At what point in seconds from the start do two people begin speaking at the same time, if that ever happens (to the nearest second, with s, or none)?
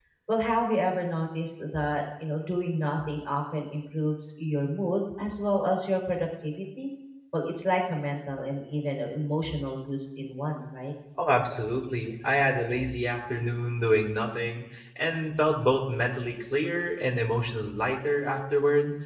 none